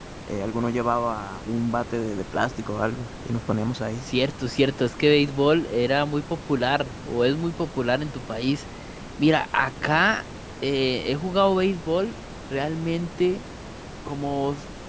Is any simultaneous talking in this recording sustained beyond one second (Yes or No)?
No